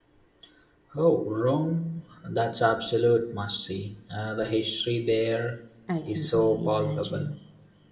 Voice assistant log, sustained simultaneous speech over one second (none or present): present